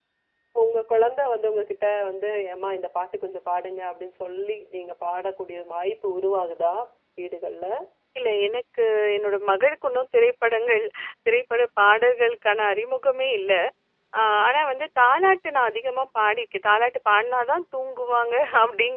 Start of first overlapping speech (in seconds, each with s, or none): none